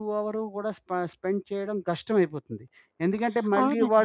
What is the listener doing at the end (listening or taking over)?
taking over